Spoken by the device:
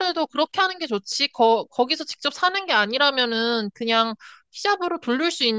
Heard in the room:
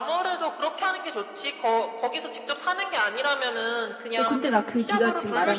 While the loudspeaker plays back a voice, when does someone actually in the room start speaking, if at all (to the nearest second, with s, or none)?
4 s